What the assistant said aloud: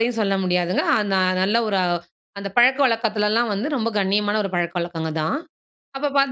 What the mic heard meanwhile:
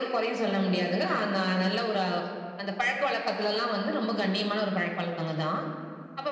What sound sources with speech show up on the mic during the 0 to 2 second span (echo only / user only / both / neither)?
echo only